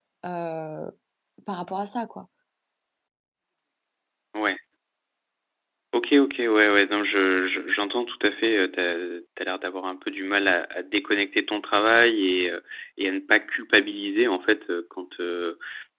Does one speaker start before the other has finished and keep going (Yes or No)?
No